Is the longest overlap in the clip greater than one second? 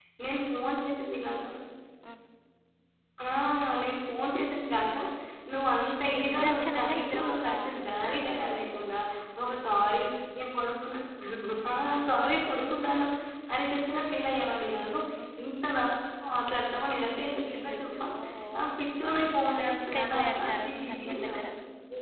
Yes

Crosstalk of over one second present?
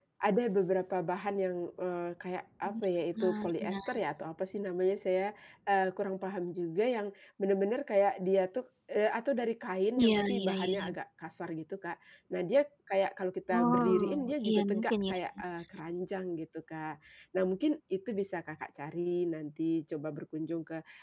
Yes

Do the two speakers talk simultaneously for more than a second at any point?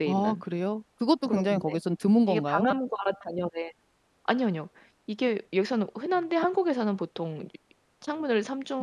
No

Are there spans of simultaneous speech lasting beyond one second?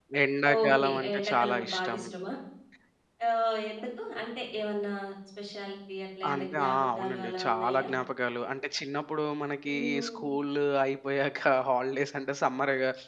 Yes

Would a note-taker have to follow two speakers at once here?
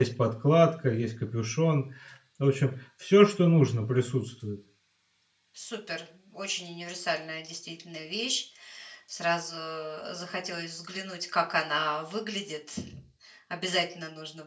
No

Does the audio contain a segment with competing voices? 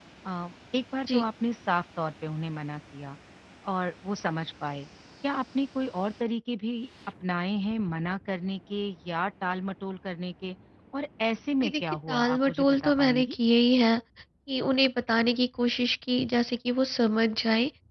Yes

